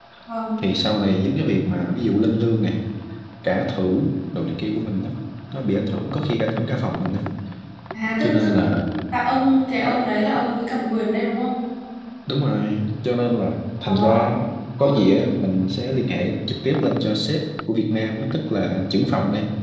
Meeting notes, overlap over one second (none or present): none